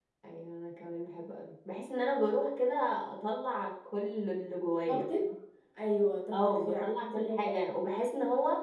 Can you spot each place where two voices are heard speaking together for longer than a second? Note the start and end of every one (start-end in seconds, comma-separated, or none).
6.3-7.6